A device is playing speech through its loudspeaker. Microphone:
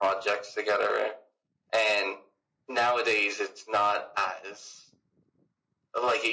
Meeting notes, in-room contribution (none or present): none